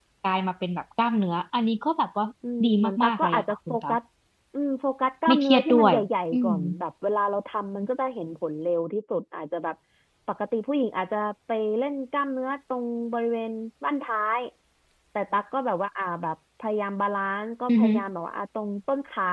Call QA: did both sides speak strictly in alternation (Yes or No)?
No